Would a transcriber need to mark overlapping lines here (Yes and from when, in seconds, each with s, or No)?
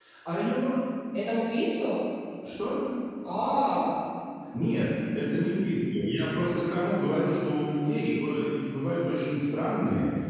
No